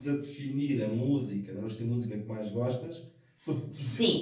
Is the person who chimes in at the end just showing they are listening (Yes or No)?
Yes